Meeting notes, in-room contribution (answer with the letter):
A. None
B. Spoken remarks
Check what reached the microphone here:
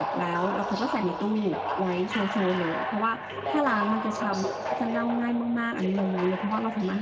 B